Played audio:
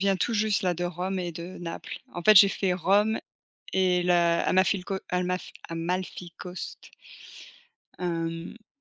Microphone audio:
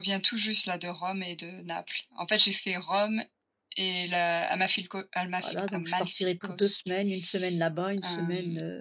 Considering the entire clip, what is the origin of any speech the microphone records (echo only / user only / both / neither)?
both